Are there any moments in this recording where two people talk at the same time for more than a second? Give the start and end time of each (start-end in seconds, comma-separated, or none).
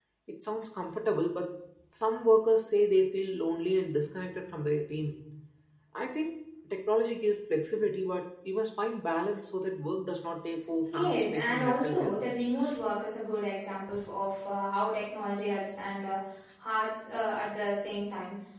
10.9-12.2